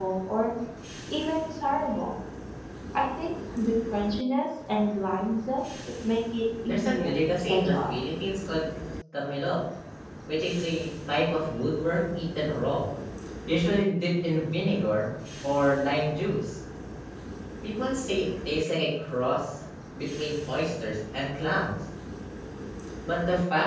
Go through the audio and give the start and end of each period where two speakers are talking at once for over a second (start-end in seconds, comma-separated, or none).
6.6-8.0